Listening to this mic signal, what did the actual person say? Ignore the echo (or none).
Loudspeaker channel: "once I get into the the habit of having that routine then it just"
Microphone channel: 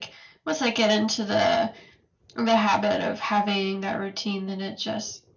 none